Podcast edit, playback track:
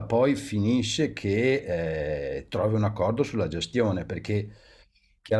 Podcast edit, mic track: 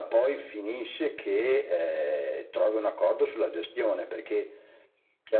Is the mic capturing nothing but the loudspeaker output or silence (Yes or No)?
Yes